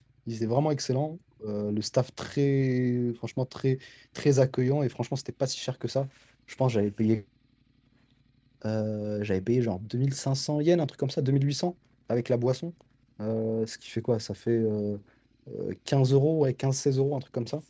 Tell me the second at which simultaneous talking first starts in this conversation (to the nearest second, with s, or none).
none